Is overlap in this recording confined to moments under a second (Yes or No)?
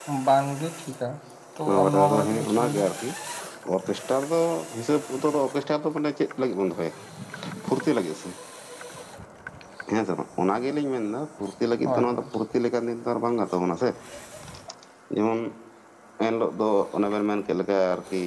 No